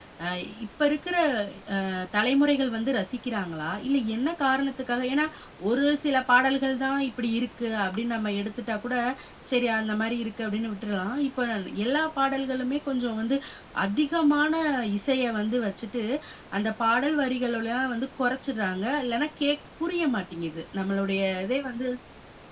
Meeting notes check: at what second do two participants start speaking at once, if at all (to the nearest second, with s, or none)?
none